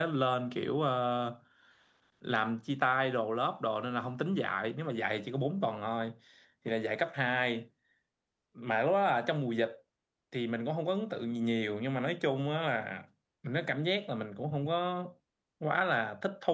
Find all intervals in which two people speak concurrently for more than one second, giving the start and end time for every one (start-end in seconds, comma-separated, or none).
none